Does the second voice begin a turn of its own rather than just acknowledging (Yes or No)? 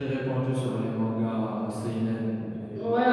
Yes